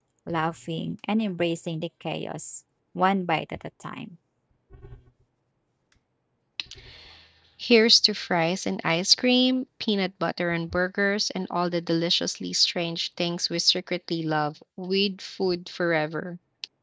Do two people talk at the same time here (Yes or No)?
No